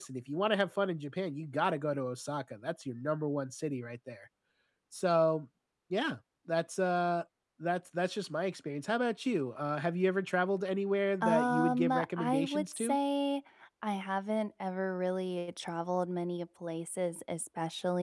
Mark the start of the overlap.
11.2 s

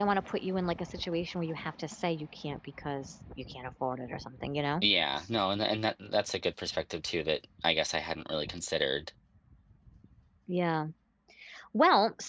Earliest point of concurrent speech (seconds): none

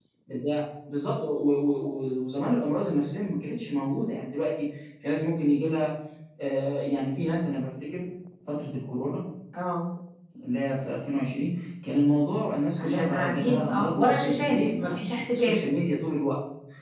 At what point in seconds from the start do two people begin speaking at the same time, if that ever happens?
12.8 s

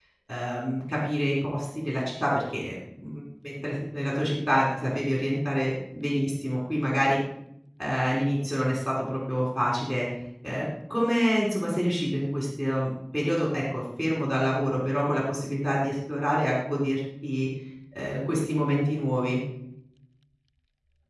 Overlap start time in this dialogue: none

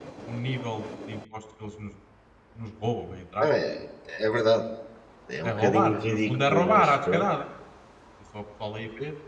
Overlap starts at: 5.4 s

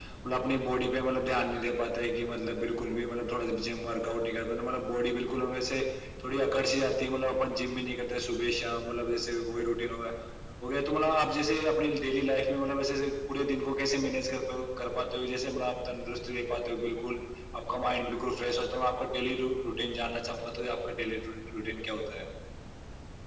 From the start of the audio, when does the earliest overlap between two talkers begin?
none

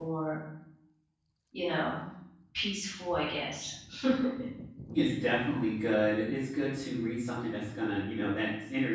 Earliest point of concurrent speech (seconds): none

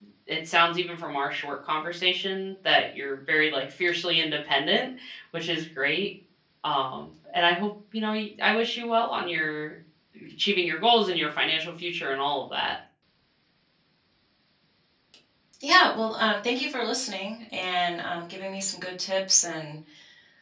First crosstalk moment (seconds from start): none

